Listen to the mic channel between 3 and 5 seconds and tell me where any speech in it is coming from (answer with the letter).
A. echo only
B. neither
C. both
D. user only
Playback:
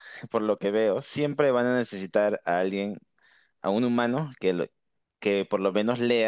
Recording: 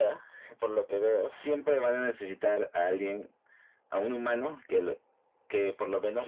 A